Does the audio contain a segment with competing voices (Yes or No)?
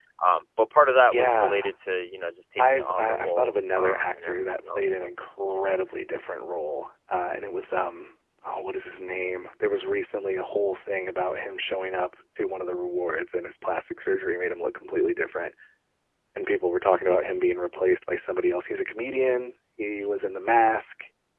Yes